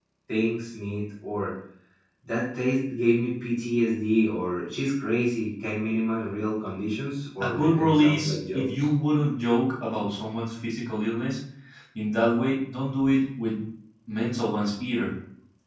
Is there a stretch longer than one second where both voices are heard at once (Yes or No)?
Yes